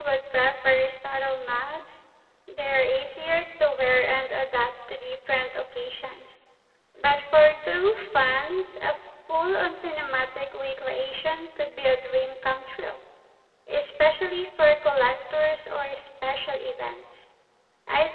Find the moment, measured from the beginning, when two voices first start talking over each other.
none

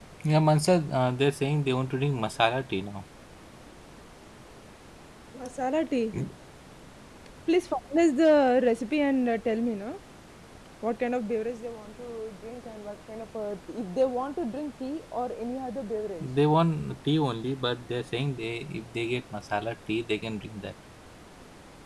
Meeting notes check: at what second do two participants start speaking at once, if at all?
none

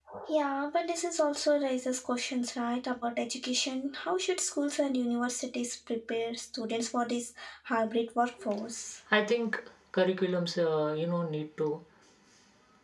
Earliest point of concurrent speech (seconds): none

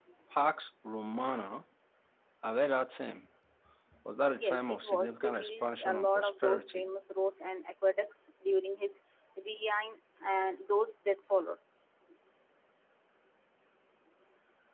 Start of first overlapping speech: 4 s

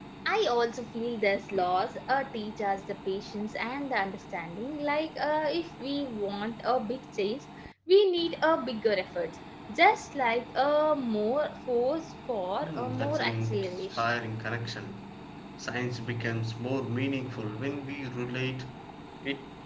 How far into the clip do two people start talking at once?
13 s

